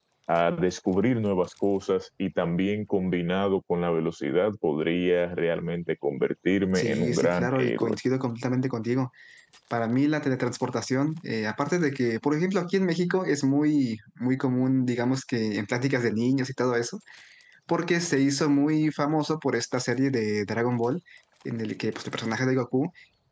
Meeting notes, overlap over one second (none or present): present